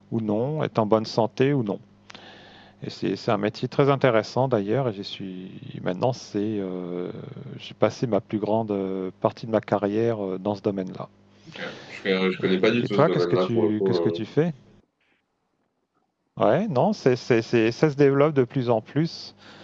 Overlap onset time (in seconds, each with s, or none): 12.3 s